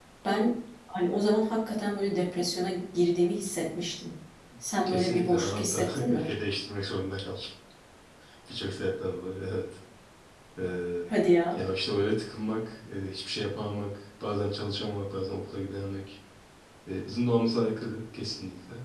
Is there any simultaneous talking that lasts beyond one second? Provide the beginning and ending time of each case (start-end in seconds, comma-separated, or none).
4.9-6.3